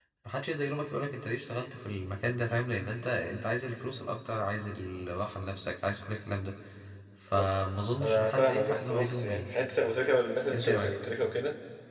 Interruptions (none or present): present